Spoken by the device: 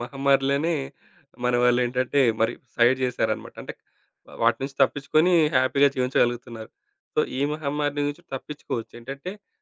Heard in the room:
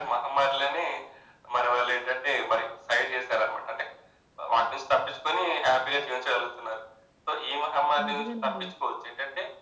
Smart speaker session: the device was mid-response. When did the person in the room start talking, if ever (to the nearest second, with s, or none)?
8 s